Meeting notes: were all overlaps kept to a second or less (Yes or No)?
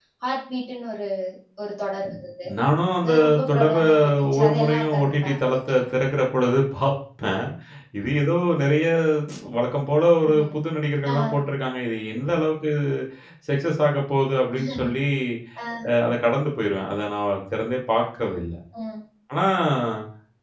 No